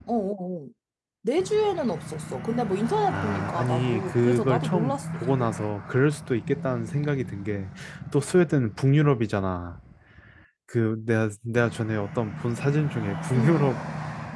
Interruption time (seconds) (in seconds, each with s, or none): 3.1 s